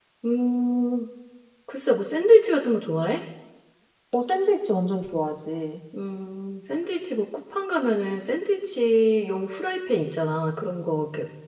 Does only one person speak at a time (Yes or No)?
Yes